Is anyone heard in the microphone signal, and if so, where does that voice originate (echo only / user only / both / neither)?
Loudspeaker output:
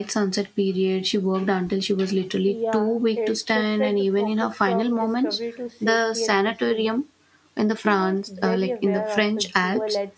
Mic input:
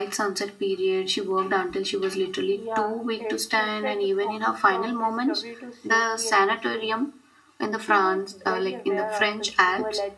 echo only